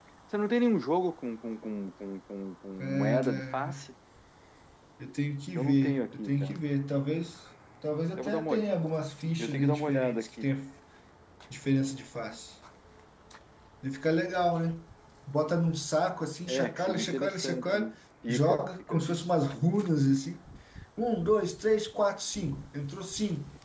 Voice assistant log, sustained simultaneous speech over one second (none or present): present